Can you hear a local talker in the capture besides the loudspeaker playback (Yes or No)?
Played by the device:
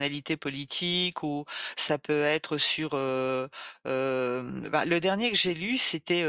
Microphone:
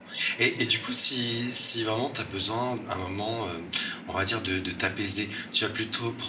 Yes